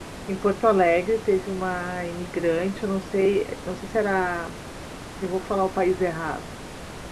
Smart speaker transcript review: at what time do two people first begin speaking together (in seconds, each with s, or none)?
none